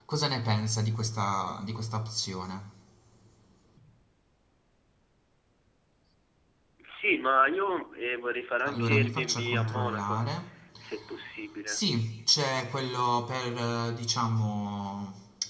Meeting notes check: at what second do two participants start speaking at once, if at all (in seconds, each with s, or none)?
8.6 s